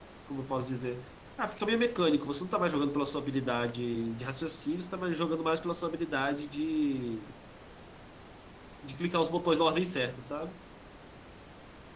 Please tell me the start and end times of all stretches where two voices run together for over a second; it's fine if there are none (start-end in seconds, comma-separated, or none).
none